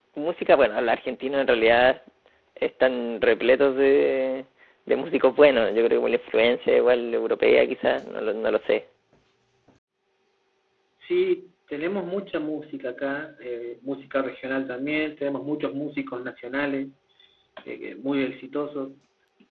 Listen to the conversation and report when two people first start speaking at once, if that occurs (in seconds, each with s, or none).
none